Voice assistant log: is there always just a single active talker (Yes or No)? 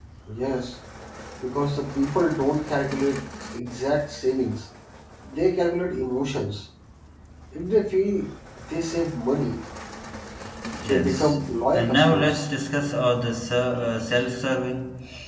No